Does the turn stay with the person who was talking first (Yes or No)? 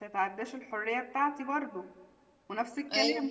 Yes